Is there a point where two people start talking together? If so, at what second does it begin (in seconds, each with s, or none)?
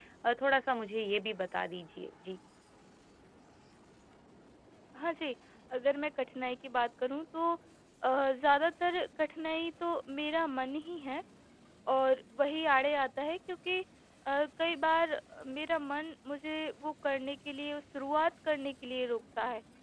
none